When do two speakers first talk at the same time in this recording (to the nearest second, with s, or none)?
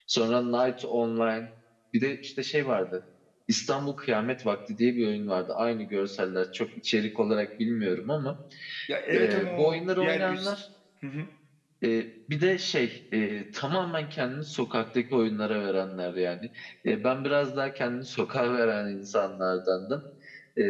9 s